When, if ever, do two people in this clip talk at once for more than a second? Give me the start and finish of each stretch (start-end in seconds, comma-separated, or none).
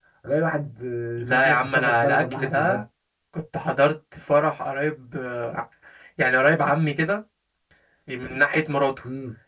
1.2-2.8